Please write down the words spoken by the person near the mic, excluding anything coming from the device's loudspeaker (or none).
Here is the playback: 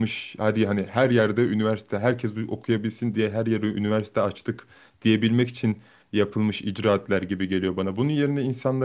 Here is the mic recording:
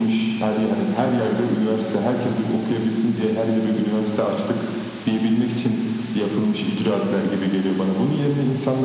none